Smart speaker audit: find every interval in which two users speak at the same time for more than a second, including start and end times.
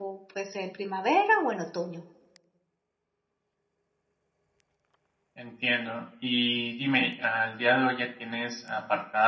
none

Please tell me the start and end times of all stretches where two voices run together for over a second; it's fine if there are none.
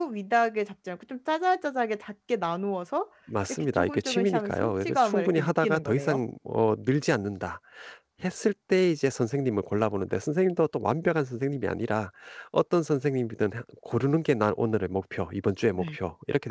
3.5-6.2

